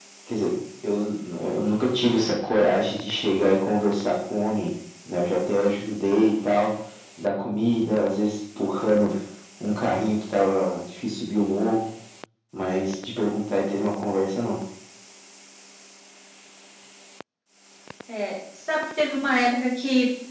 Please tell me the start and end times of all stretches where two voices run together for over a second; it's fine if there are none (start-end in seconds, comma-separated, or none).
none